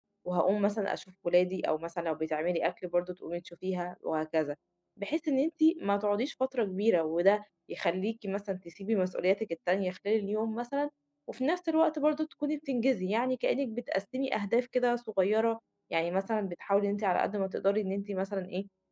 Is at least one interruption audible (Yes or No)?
No